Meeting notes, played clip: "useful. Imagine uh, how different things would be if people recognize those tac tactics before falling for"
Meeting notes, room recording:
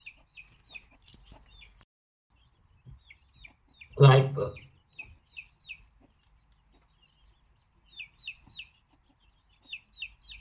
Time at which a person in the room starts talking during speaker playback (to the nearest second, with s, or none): 4 s